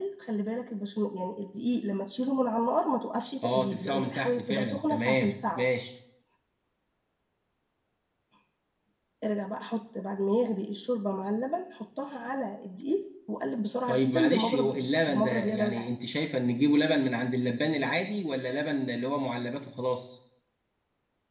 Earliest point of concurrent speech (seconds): 3.4 s

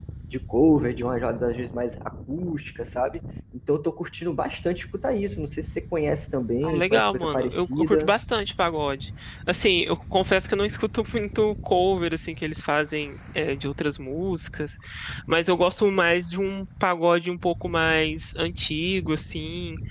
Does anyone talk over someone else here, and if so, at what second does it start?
6.6 s

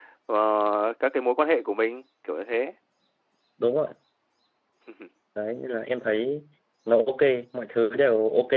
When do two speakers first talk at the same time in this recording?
none

